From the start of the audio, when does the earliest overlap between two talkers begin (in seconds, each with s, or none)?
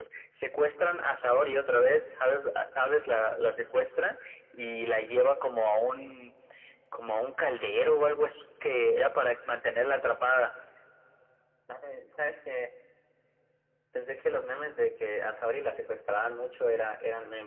none